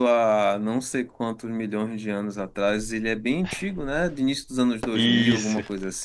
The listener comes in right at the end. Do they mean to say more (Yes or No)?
Yes